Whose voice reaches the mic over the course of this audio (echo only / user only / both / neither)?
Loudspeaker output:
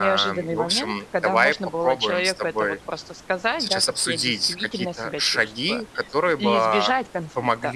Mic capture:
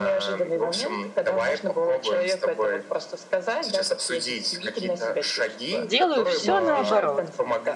both